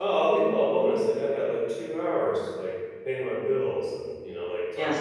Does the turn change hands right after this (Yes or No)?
Yes